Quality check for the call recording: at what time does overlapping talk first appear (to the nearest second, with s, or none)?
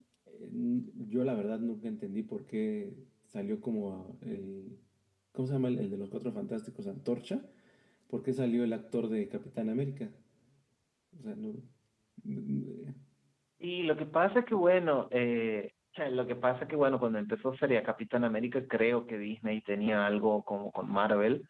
none